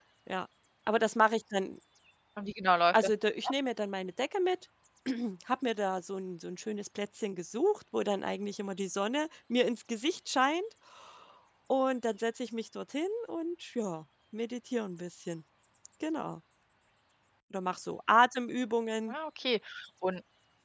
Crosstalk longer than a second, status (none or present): none